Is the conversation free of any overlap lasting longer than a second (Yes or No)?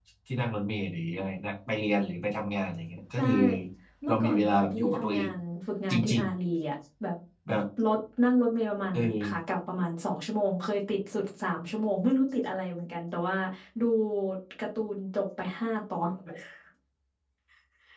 No